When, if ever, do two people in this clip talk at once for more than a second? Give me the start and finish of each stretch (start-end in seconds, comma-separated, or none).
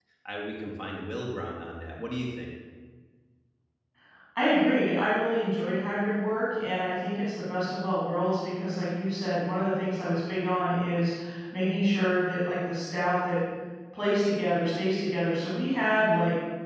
none